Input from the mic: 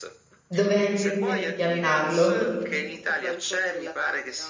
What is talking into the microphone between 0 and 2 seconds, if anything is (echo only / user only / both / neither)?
both